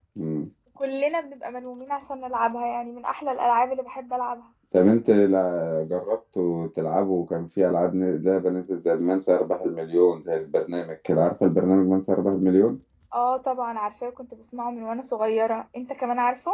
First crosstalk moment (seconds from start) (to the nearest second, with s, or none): none